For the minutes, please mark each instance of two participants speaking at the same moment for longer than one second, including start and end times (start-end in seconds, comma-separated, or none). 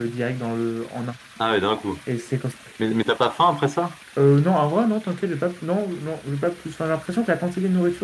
none